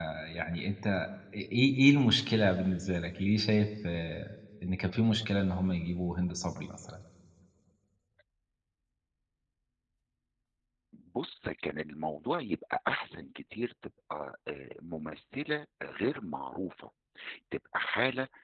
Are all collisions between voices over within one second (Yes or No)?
Yes